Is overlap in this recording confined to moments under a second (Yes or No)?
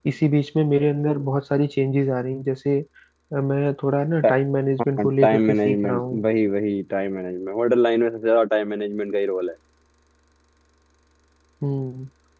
No